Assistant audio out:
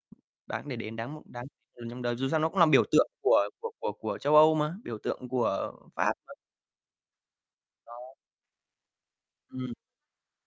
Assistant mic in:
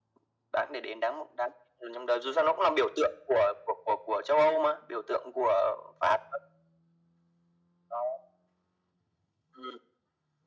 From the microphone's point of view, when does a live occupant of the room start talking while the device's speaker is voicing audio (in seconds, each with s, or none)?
none